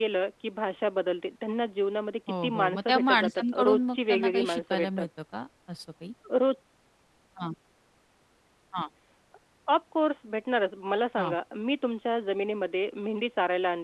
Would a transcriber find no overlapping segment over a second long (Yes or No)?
No